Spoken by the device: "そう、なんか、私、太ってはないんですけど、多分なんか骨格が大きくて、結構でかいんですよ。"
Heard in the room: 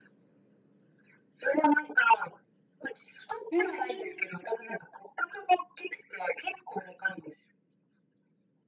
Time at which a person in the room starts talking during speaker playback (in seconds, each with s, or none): 3.5 s